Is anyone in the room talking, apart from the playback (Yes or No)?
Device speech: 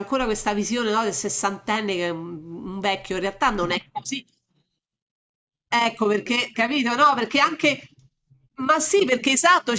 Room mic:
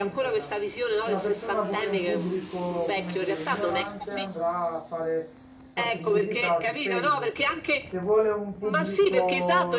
Yes